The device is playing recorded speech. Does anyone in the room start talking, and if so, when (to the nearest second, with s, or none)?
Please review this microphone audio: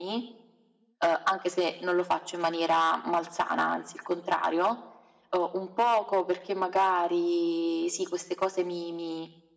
none